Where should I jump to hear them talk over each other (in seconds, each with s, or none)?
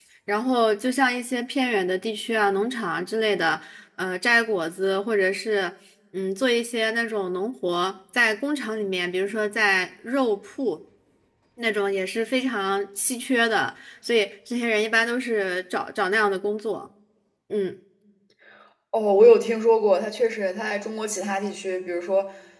none